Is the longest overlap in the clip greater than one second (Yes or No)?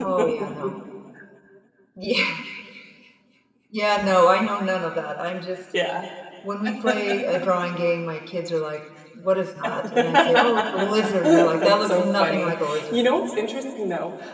Yes